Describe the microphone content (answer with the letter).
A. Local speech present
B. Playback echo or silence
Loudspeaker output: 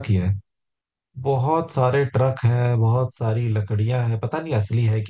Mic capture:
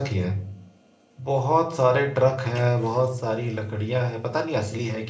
B